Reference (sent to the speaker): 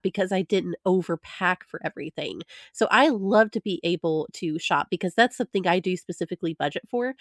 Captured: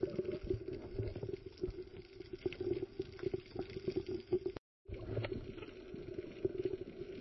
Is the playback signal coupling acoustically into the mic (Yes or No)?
No